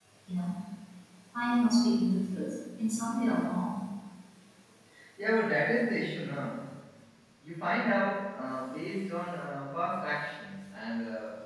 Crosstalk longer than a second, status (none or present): none